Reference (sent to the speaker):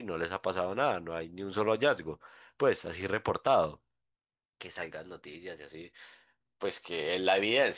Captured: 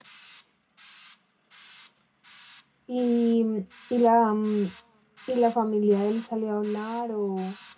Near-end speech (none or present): present